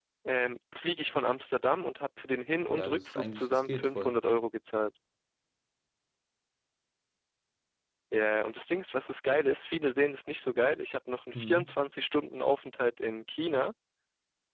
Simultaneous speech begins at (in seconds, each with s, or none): 2.7 s